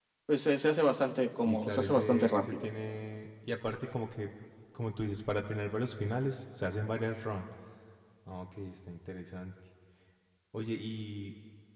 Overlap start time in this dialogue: 1.4 s

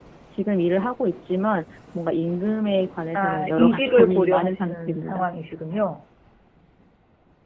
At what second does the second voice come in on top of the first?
3.1 s

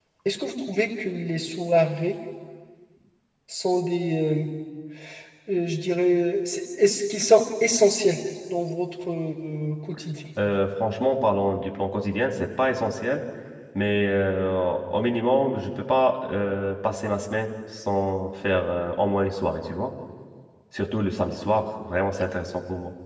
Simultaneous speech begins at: none

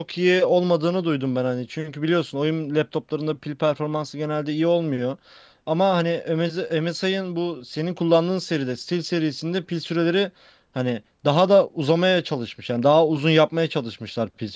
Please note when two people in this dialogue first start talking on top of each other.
none

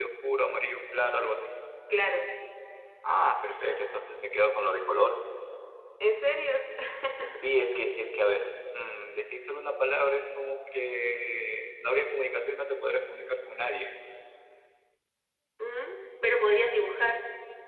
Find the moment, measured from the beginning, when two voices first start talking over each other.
none

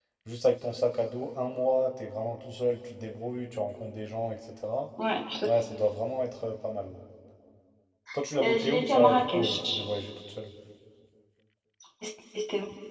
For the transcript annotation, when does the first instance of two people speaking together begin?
8.4 s

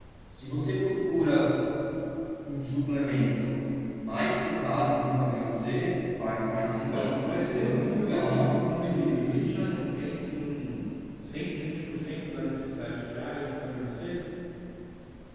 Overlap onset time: 6.9 s

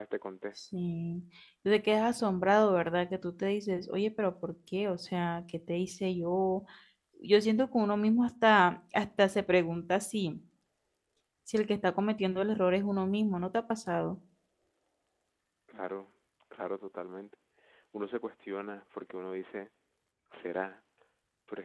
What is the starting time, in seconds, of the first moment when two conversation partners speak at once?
none

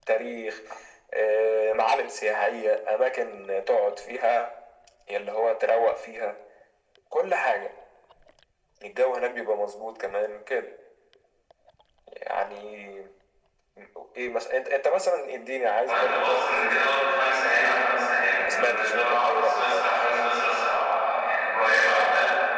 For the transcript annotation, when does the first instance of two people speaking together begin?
15.9 s

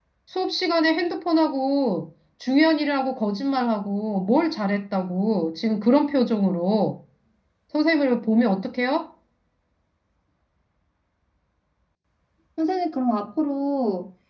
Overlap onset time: none

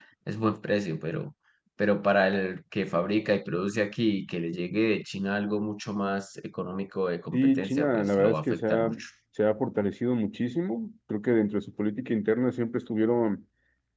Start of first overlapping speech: 7.3 s

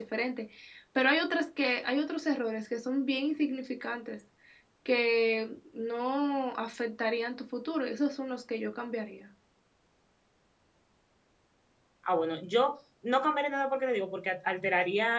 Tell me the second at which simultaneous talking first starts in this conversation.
none

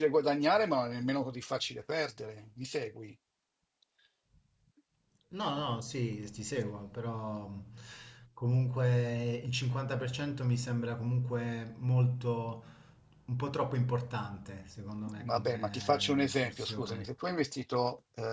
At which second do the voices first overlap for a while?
15.1 s

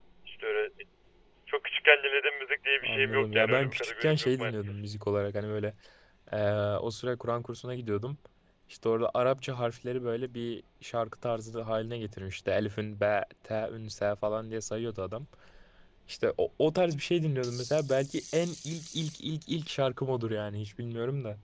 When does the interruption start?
2.8 s

